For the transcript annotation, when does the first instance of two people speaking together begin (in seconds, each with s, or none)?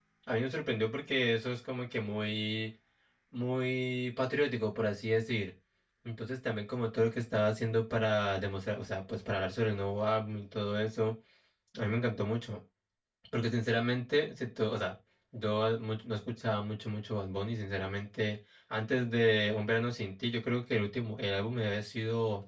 none